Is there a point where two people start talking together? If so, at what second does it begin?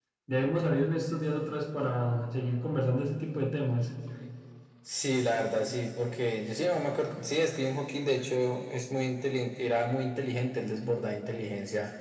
none

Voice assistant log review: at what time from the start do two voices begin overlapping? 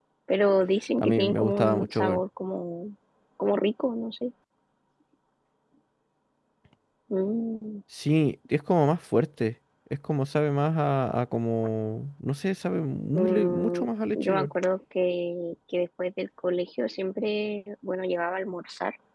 1.0 s

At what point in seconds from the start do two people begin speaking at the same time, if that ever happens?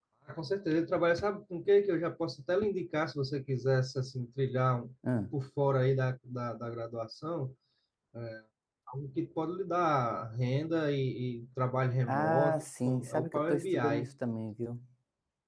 12.1 s

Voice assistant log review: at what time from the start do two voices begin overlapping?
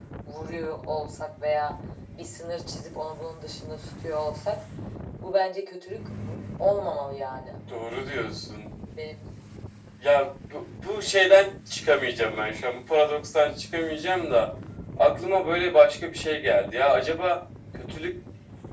none

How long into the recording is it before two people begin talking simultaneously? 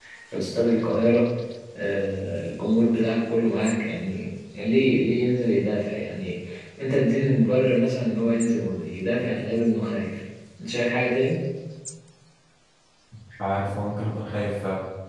none

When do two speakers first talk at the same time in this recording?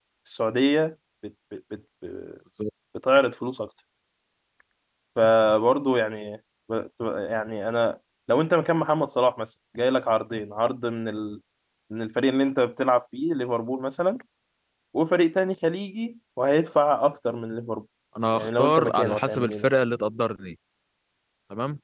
18.3 s

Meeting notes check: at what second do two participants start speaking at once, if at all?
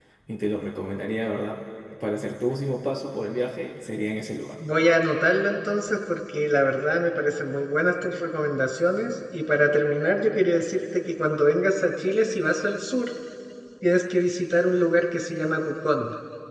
none

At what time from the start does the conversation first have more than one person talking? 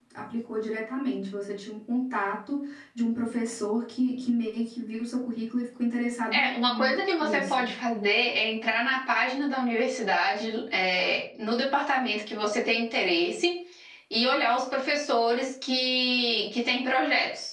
6.3 s

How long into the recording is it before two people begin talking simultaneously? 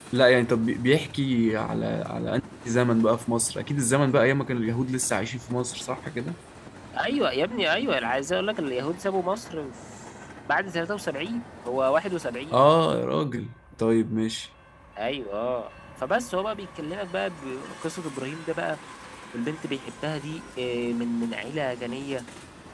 none

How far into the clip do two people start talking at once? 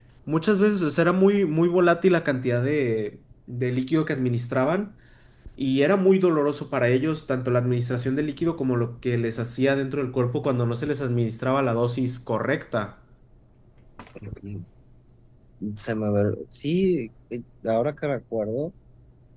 none

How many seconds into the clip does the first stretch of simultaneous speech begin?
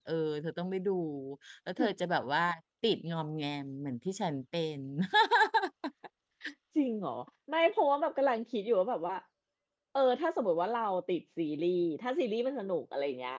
none

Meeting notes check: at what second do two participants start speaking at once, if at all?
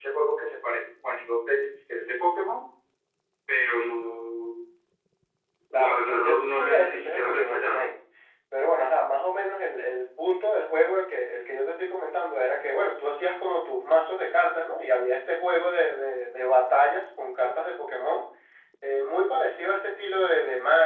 5.7 s

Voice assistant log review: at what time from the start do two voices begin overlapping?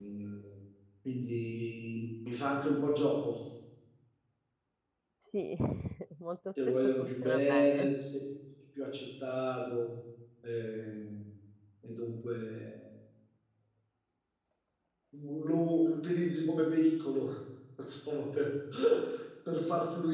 6.7 s

